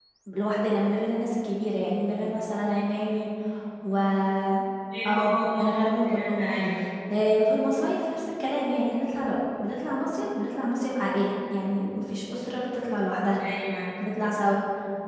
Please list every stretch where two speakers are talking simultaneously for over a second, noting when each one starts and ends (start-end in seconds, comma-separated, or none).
5.1-6.5